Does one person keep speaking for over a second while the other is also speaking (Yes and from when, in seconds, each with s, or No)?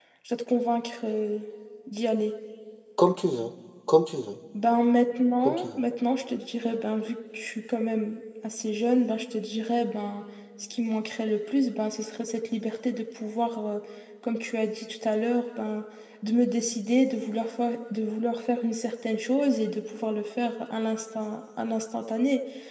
No